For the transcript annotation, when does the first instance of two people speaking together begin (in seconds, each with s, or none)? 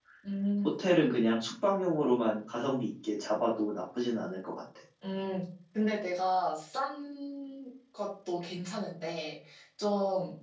none